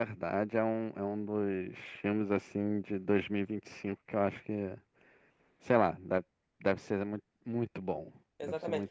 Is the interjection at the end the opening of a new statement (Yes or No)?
Yes